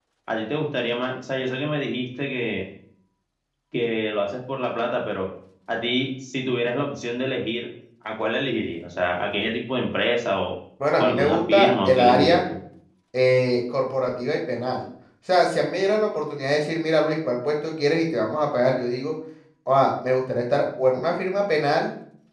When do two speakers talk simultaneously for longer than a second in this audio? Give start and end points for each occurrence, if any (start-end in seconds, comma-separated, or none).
11.0-12.4